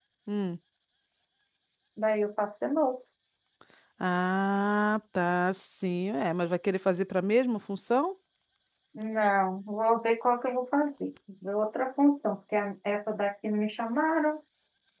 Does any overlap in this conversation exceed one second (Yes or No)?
No